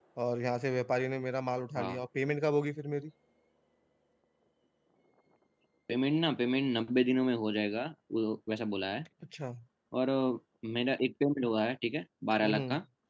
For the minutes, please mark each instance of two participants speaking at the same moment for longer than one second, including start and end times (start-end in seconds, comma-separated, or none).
none